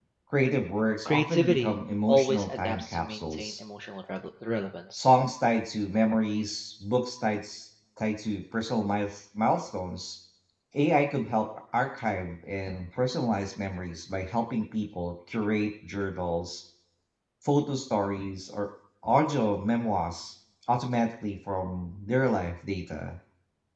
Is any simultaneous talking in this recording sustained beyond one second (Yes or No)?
Yes